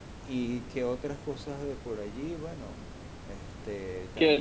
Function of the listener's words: taking over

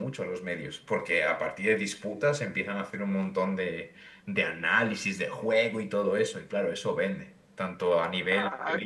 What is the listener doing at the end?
taking over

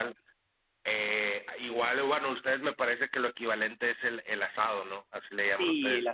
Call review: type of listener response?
taking over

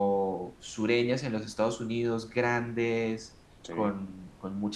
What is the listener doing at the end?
listening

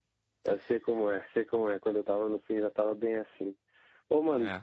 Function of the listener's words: listening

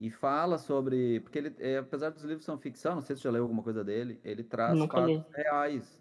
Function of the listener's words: listening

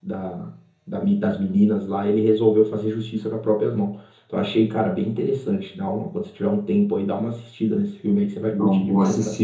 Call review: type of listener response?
taking over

